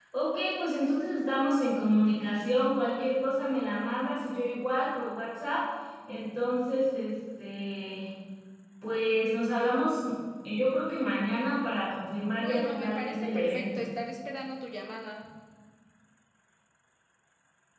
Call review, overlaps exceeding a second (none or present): present